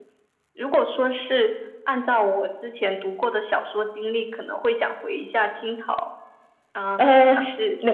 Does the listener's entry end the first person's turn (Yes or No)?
Yes